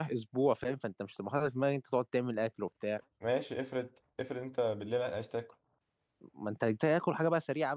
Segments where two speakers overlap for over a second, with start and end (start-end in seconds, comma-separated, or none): none